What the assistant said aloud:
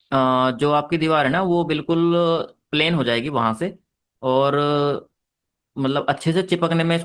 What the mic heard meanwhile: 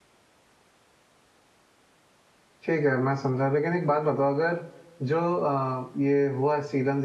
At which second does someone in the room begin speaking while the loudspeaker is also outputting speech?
2.6 s

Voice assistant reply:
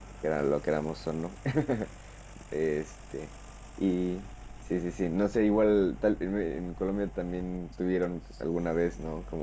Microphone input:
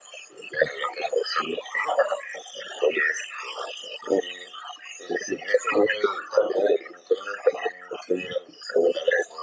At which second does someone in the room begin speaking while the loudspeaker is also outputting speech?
none

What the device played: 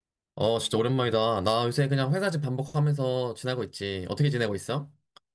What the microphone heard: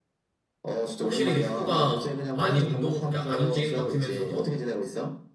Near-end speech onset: 1.0 s

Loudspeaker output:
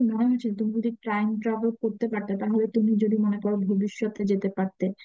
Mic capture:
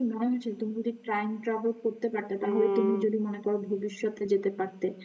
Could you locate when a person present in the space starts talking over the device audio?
2.4 s

